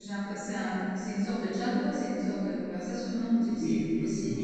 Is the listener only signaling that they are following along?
No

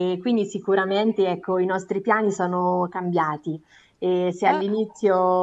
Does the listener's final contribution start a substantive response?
No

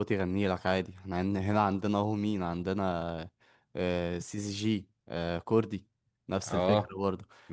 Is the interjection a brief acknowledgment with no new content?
No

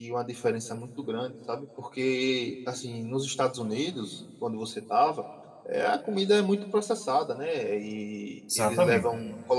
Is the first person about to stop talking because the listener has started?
No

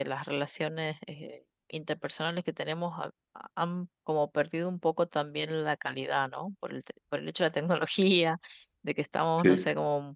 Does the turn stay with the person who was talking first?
Yes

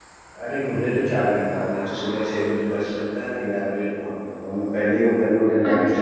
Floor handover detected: Yes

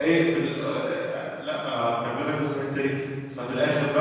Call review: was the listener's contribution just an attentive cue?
Yes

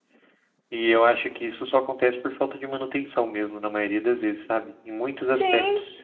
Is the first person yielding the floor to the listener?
Yes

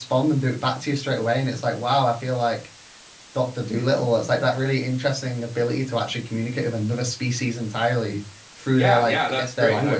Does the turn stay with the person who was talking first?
No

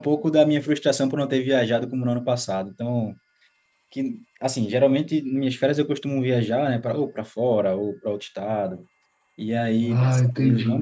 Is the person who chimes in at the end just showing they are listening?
Yes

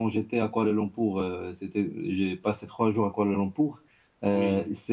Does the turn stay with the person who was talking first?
Yes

